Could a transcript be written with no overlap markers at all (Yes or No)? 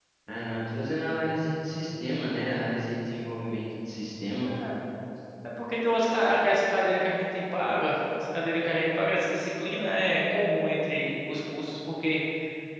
Yes